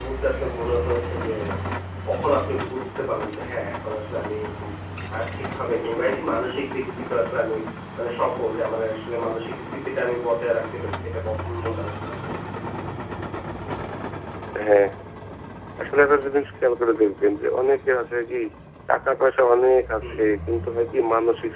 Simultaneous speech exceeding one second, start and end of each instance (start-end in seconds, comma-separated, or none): none